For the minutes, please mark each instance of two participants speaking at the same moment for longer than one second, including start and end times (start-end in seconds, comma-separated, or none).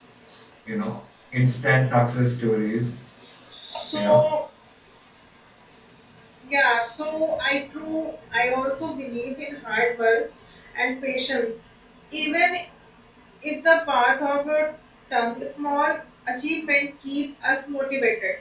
none